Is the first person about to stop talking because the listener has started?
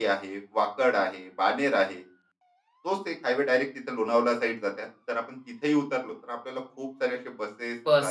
Yes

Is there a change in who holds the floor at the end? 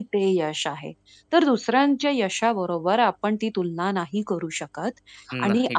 No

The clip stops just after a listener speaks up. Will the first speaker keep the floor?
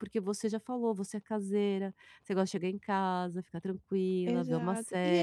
No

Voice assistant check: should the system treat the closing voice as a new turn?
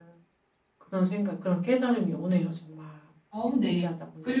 Yes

